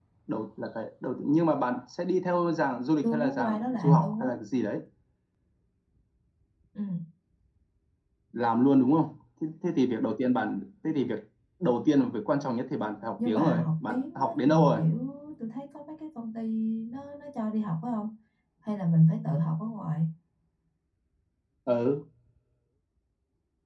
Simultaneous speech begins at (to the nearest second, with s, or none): 3 s